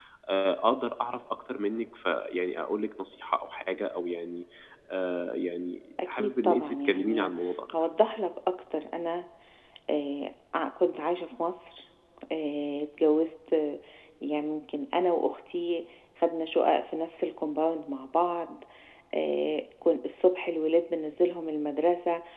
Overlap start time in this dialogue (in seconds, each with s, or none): 6.0 s